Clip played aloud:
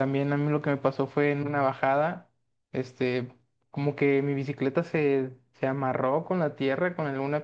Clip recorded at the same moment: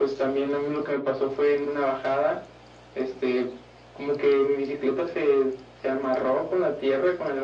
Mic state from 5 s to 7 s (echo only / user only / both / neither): echo only